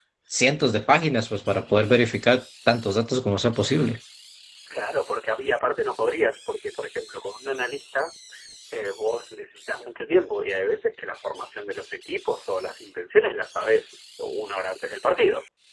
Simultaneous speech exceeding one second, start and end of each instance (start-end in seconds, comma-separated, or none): none